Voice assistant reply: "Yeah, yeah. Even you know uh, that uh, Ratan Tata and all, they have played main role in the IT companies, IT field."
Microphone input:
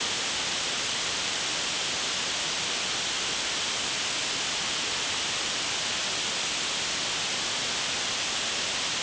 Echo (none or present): none